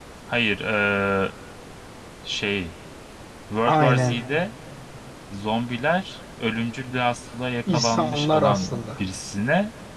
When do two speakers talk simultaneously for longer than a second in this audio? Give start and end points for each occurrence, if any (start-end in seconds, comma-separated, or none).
7.7-9.0